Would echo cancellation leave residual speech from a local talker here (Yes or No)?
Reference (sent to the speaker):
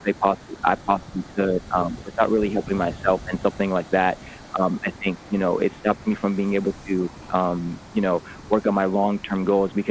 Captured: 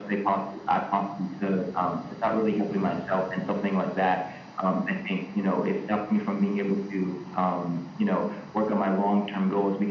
No